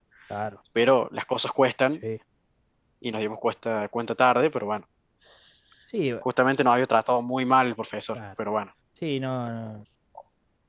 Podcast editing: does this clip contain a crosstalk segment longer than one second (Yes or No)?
No